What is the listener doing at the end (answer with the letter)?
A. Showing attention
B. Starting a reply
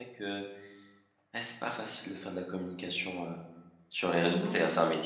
B